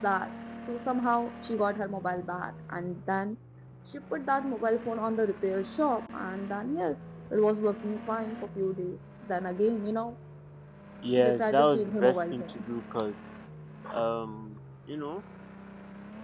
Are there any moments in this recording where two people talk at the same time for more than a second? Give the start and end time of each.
11.2-12.7

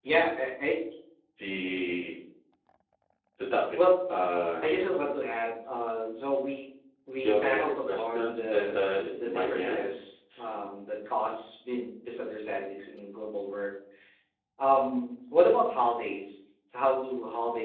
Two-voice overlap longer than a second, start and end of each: 7.2-9.8

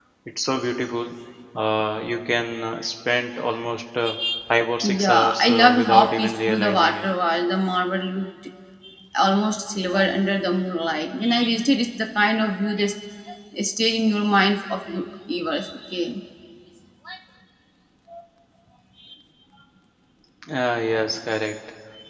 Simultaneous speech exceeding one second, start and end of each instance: 5.0-7.0

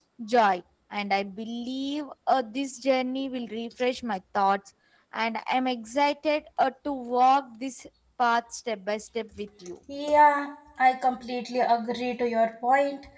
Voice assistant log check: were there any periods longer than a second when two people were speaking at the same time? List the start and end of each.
none

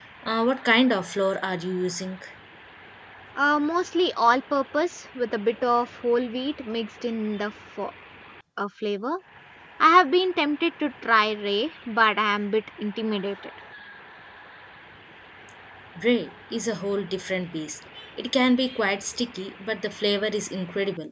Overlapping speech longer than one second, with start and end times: none

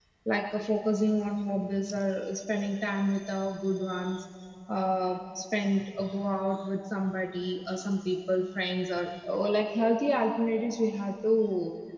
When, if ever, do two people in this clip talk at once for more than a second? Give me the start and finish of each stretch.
none

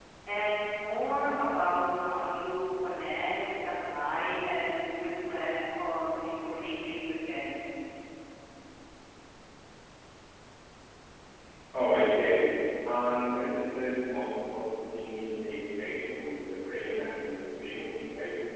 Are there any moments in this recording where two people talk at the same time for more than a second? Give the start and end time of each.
none

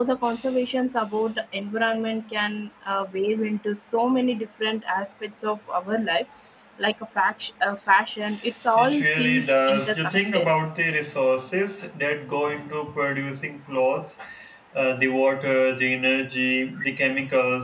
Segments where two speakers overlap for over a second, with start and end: 8.8-10.5

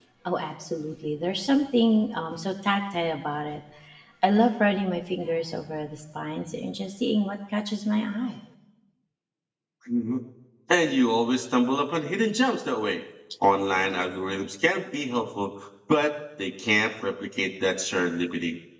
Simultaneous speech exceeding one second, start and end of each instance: none

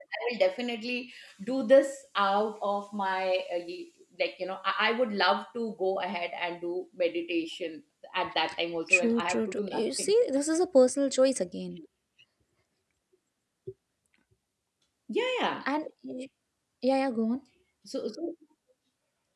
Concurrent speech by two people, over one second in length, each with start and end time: 8.9-10.1

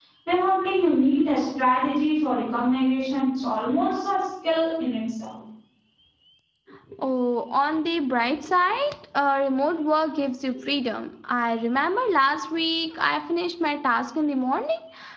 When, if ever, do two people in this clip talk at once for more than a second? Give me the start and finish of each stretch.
none

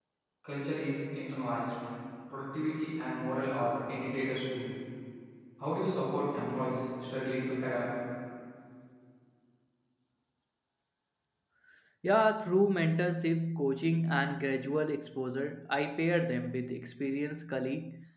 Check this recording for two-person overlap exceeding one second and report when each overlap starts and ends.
none

